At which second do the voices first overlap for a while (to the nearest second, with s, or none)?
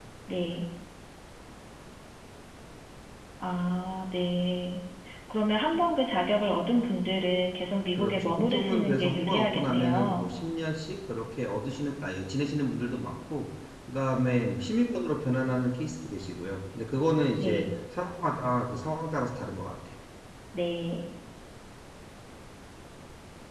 8 s